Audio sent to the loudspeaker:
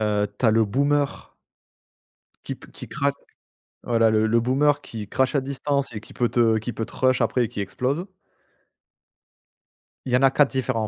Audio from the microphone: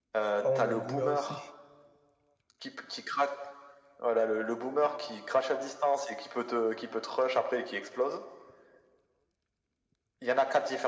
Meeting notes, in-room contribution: present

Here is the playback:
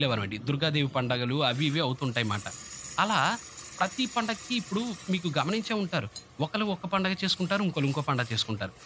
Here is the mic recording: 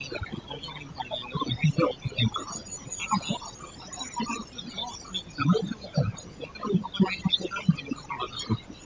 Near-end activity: none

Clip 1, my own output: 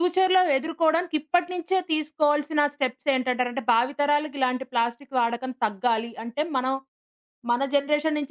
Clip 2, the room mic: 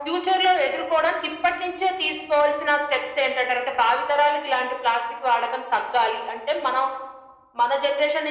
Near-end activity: none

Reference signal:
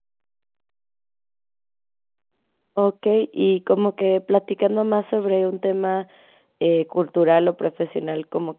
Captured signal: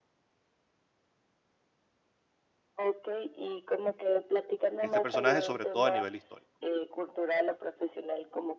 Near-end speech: present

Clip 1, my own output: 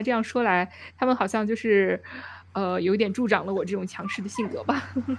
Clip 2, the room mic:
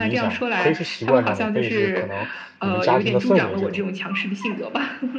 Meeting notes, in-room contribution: present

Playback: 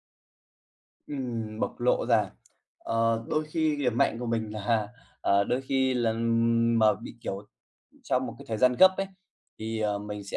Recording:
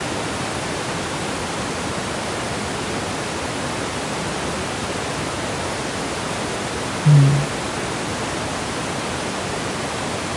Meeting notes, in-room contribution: present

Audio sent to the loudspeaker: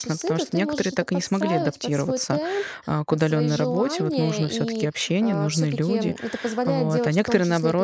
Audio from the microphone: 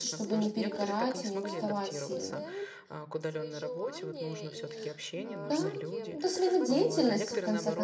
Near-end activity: present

